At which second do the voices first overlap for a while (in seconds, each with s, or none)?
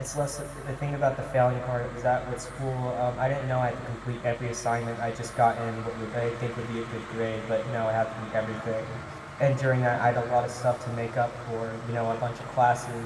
none